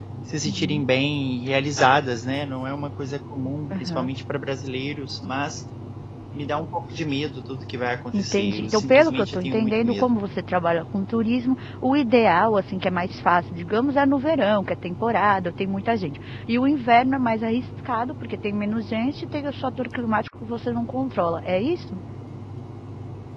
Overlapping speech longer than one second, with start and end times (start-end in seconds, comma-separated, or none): 8.1-10.2